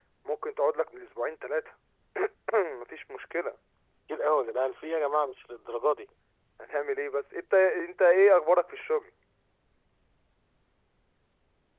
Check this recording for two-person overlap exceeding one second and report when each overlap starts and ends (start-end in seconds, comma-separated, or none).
none